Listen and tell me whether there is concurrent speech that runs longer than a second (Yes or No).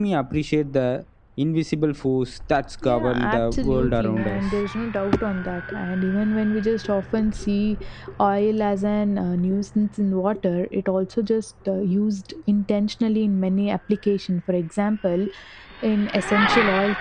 Yes